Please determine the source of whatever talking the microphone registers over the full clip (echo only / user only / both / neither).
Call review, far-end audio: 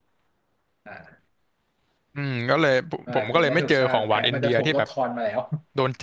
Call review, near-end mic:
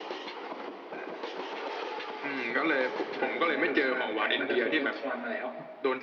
echo only